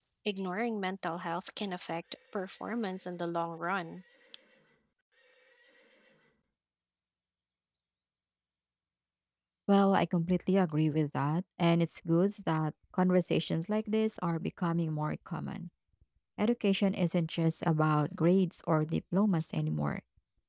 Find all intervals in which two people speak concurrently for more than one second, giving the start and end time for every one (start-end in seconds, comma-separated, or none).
none